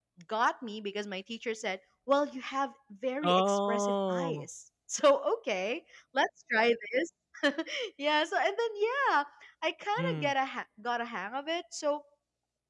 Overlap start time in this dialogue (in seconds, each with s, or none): 3.2 s